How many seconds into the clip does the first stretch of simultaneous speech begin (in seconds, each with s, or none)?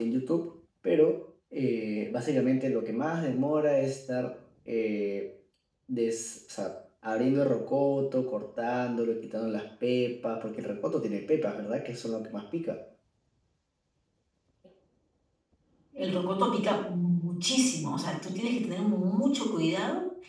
none